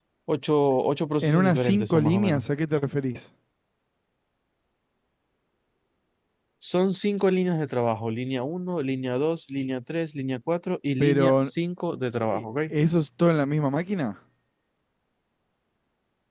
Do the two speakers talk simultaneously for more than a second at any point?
Yes, from 1.2 s

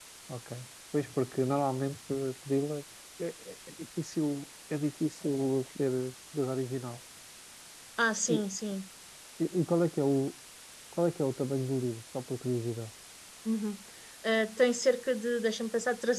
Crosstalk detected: No

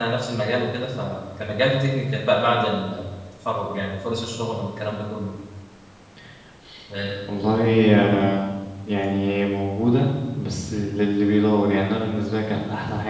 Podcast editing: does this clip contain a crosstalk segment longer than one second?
No

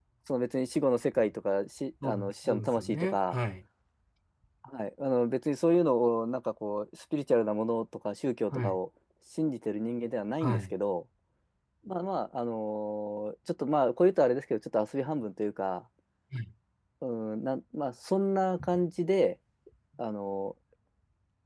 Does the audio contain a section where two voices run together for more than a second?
Yes, from 2.0 s

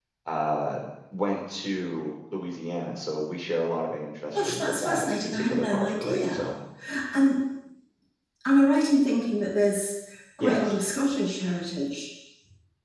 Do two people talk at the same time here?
Yes, from 4.3 s

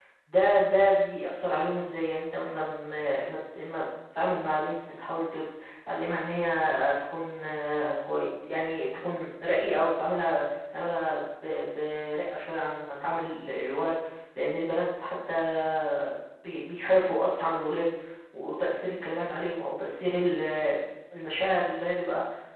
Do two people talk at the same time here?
No

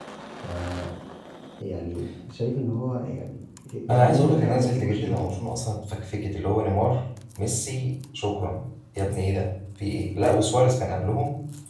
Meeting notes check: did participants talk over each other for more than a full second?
Yes, from 3.9 s

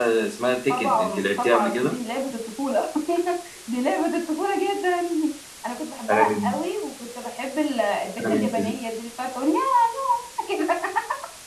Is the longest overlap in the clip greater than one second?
Yes, from 0.7 s

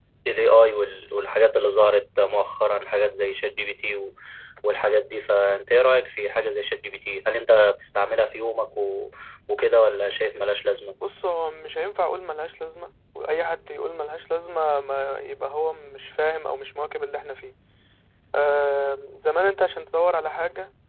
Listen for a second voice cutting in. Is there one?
No

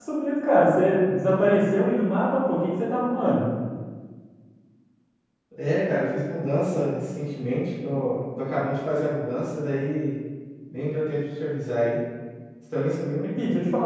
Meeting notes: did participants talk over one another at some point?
No

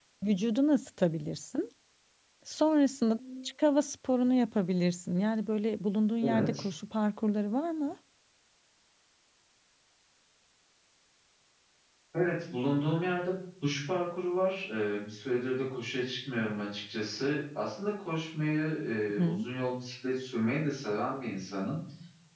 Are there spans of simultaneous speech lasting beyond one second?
No

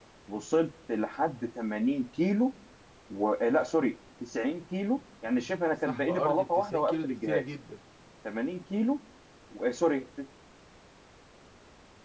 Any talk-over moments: Yes, from 5.8 s

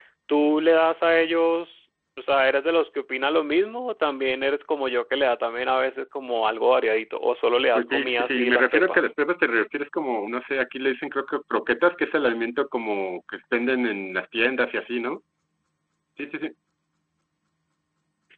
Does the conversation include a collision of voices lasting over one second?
Yes, from 7.8 s

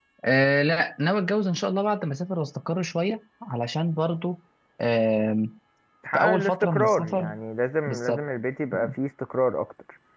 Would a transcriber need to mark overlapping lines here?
Yes, from 6.1 s

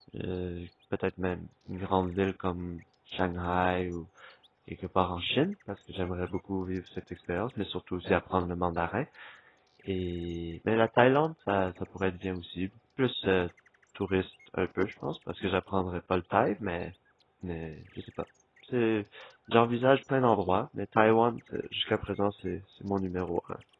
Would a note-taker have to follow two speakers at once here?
No

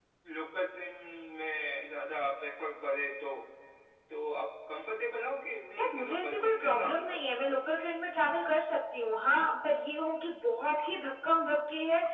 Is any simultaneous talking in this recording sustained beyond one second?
Yes, from 5.8 s

